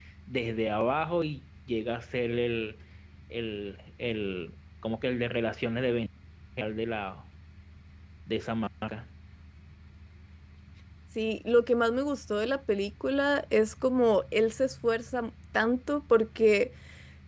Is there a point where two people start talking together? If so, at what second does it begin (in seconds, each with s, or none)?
none